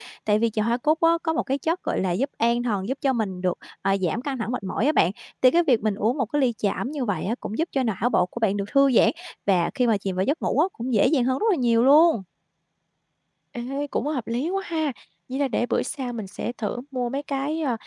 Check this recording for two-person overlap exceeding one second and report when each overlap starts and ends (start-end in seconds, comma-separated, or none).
none